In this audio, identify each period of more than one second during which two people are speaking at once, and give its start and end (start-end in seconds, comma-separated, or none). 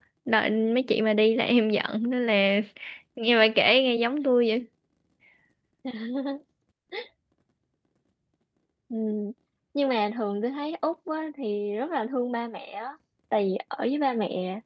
none